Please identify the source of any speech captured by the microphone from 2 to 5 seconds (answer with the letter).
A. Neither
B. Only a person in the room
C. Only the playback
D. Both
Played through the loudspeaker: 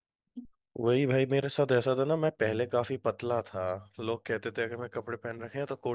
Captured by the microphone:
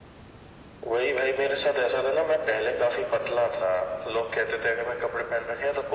C